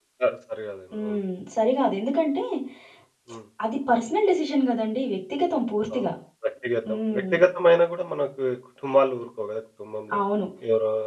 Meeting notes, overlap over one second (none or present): none